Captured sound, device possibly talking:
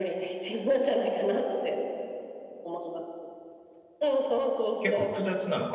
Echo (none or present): present